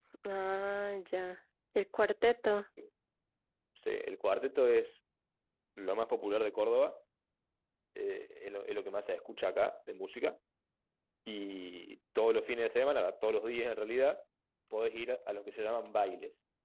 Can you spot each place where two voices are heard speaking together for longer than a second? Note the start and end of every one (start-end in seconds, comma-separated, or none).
none